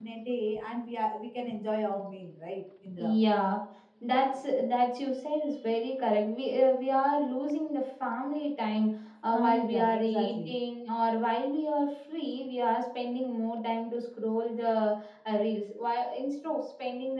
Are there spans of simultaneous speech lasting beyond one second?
Yes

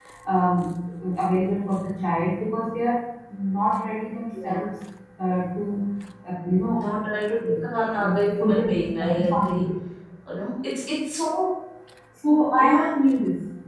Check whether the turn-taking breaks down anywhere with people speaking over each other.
Yes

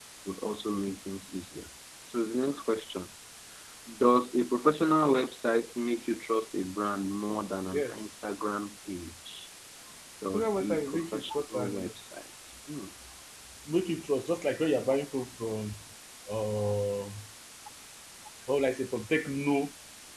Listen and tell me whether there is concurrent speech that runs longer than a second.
Yes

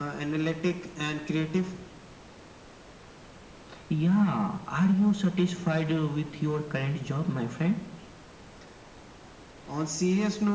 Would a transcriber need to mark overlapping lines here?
No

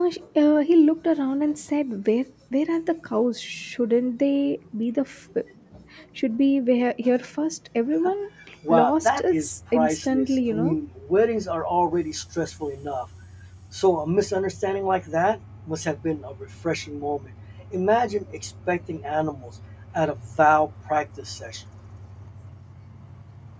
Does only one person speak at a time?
No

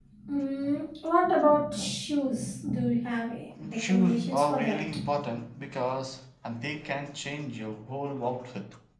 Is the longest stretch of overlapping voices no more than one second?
No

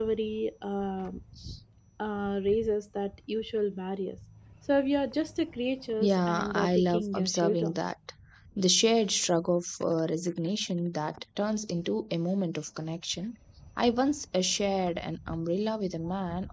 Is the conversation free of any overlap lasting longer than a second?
No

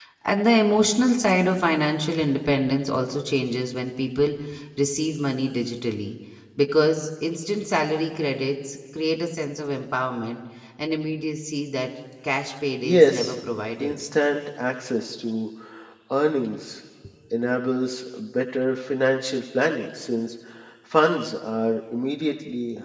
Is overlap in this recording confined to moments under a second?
Yes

